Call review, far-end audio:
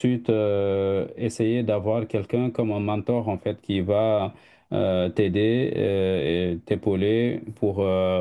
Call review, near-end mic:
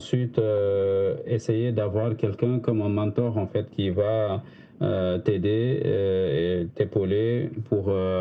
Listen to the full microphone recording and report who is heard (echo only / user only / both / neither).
echo only